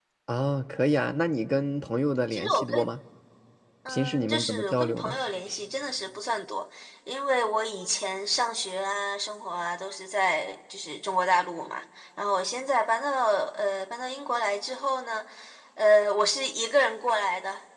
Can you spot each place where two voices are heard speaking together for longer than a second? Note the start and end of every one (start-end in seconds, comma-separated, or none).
3.9-5.2